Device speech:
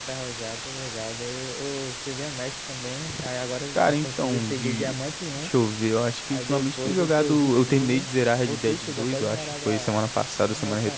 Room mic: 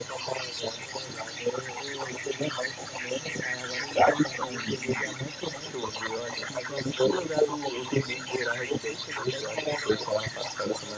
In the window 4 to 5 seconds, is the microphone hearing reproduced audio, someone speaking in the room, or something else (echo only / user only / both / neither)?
echo only